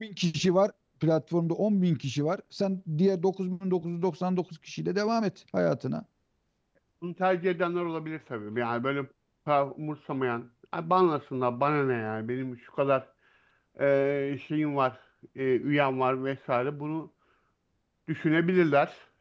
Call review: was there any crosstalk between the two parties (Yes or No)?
No